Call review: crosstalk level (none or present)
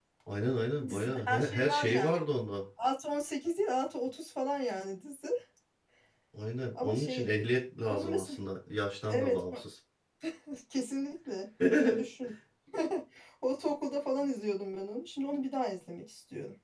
present